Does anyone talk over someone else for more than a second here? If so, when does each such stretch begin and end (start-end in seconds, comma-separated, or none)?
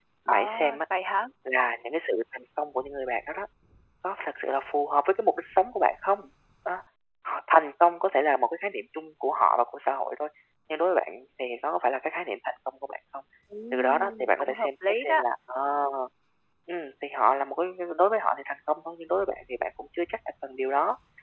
13.7-15.2